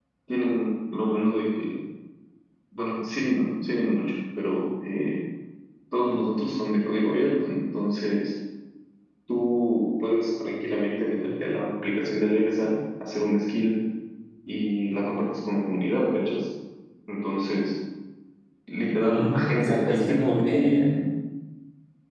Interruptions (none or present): present